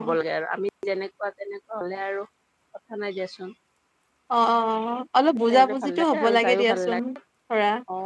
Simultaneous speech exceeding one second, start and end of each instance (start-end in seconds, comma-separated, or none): 5.4-7.0